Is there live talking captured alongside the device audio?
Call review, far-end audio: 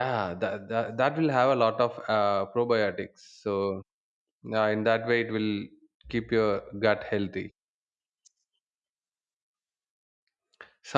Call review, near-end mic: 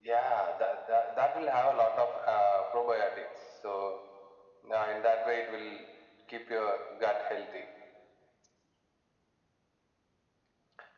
No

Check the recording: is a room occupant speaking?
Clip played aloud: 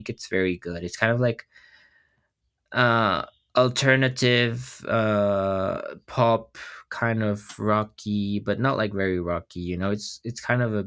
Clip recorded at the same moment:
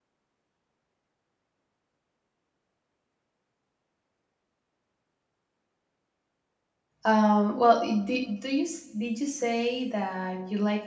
Yes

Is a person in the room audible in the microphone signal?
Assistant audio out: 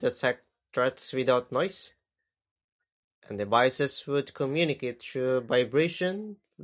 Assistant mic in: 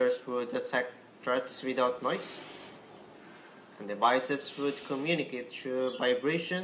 No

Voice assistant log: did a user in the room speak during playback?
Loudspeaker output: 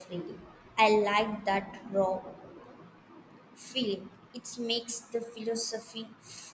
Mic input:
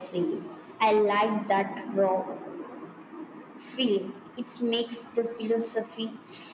No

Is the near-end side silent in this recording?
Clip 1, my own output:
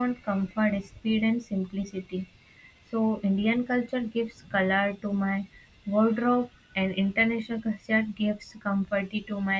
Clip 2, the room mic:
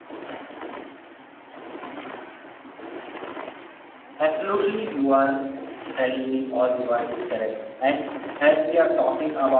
No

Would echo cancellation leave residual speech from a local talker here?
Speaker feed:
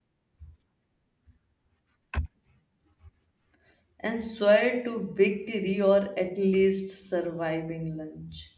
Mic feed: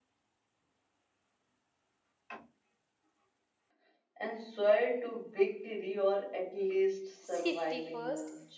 Yes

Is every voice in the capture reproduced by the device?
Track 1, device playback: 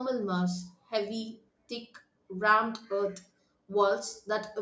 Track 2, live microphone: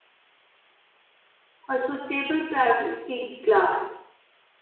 No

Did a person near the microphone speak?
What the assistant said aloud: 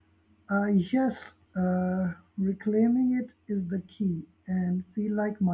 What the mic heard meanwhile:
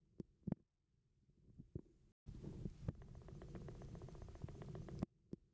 No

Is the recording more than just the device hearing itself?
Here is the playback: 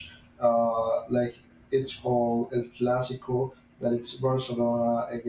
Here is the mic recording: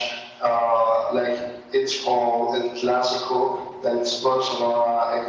No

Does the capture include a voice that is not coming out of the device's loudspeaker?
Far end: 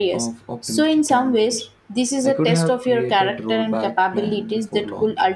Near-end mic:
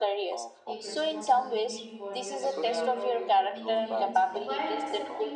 Yes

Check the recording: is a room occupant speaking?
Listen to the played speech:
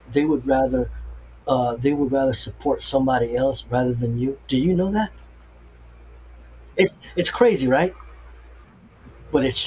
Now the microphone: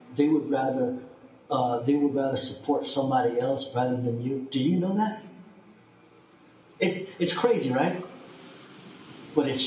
No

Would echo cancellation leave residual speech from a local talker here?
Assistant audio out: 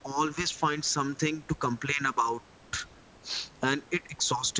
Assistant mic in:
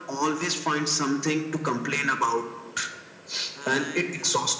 Yes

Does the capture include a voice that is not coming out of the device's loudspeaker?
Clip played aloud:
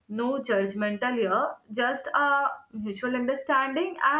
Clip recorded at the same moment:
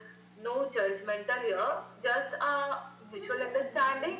Yes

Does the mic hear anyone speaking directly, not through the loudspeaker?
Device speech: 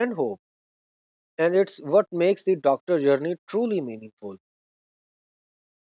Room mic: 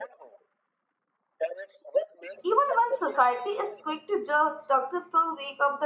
Yes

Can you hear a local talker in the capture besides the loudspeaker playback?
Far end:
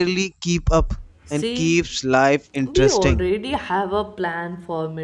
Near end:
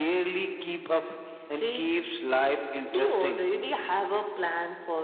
No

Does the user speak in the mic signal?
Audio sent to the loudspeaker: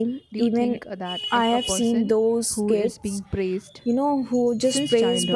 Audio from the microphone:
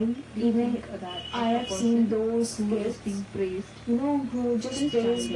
No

